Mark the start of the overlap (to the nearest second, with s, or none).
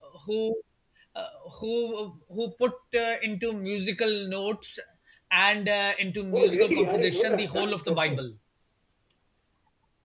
6 s